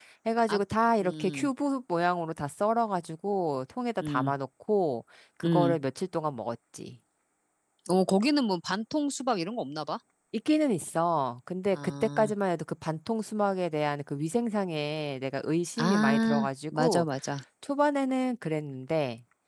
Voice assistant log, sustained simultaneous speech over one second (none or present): present